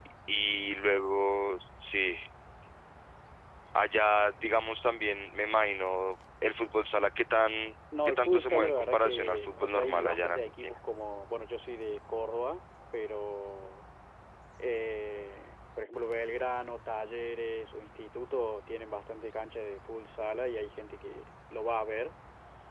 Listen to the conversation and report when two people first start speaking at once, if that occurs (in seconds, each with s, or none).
7.9 s